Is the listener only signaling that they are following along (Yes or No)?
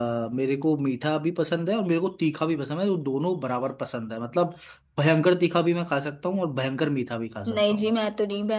No